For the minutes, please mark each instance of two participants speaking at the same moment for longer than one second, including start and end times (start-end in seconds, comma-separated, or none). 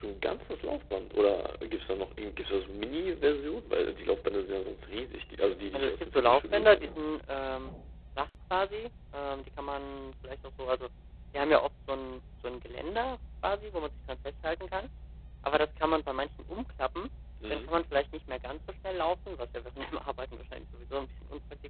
5.7-7.0